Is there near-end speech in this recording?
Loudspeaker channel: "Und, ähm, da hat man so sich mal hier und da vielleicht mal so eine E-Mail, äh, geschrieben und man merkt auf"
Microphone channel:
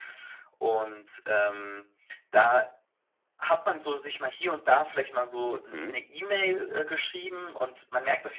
Yes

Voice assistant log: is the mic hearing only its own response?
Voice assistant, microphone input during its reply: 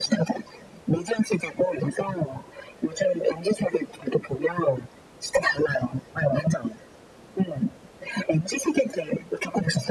Yes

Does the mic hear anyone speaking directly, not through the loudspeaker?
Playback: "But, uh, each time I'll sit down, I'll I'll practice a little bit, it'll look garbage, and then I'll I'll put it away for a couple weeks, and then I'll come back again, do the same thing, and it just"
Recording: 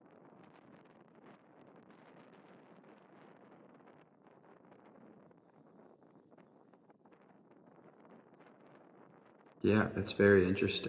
Yes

